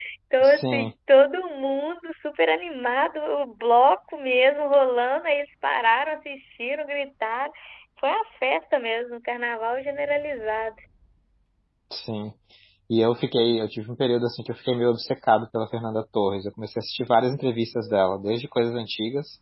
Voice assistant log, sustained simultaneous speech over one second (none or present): none